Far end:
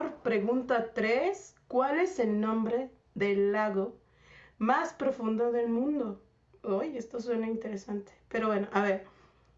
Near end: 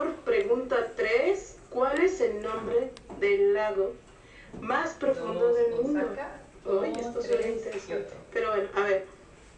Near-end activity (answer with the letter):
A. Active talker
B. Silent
A